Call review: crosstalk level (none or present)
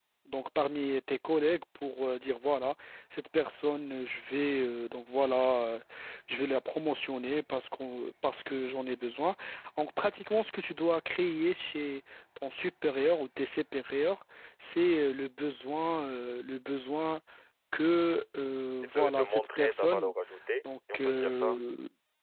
present